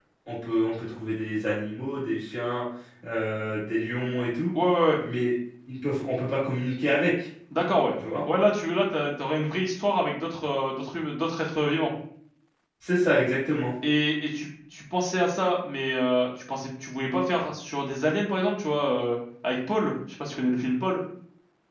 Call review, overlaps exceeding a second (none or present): none